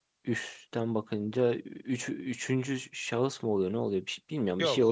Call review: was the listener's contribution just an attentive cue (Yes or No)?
No